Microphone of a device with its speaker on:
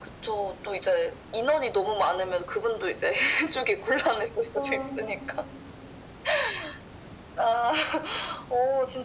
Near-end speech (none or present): present